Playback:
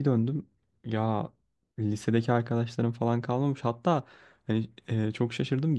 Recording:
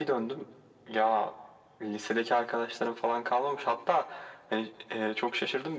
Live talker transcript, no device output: none

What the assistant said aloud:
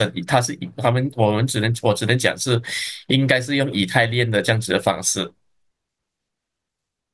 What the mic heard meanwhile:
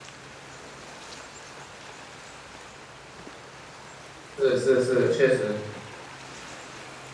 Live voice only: 是是是，确实。

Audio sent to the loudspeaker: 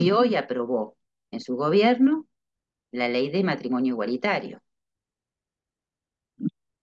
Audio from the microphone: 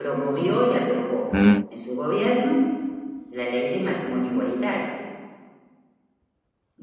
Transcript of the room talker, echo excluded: mm,

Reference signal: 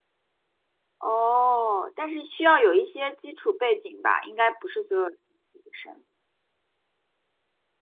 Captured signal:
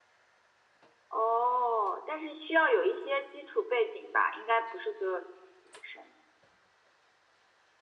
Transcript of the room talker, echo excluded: none

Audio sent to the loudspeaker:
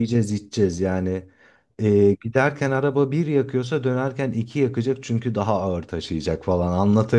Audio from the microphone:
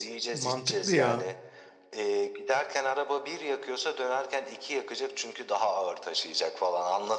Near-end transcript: Mantıklı ya.

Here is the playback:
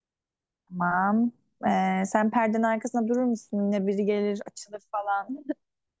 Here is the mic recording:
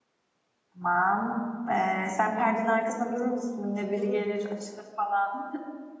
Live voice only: Durur.

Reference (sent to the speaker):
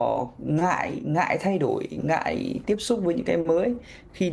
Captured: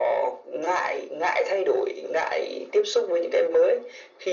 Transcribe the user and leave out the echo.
none

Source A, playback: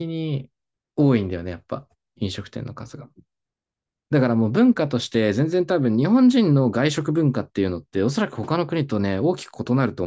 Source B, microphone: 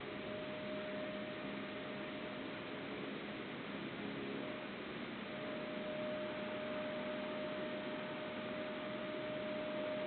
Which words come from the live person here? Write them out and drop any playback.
none

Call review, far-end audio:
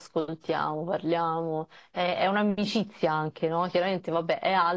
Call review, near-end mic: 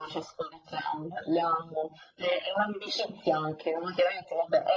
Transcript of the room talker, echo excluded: none

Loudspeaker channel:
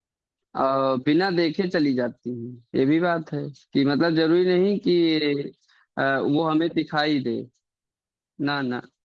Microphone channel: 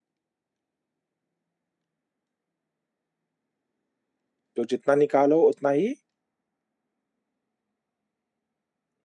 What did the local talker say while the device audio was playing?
तो जितना निकालो उतना ही

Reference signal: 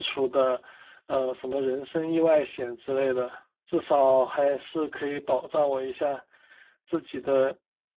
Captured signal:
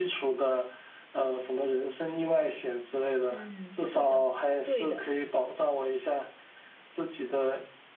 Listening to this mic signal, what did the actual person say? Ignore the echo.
嗯，是的，对的。

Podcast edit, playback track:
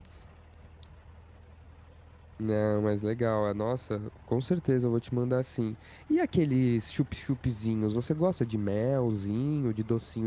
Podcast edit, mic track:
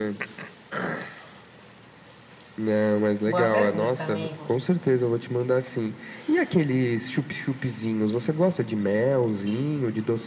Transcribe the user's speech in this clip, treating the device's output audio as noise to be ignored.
Boa pergunta, amigo.

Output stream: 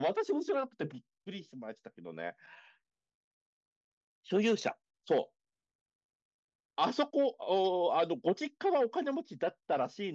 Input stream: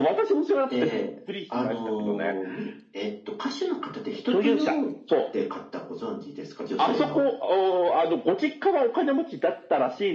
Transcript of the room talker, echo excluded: で、あのーみ、えっと、歌手の方で人とよって方ご存知ですか女性の。

